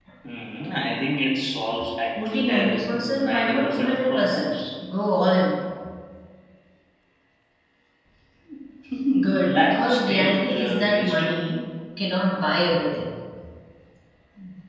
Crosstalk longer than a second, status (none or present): present